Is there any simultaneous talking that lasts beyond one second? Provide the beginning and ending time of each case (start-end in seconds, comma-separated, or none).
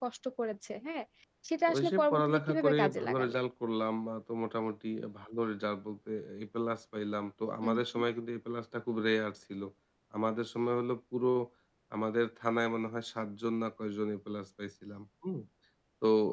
1.7-3.4